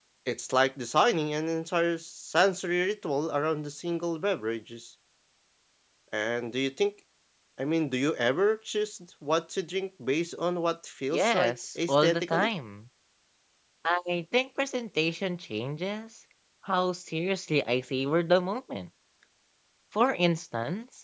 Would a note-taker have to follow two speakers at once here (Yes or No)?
Yes